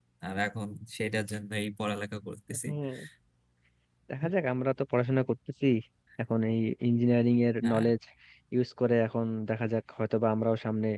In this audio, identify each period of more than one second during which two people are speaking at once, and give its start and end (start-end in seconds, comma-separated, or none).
none